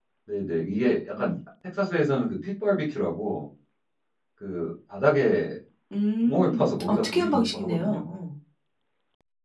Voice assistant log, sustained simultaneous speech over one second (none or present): present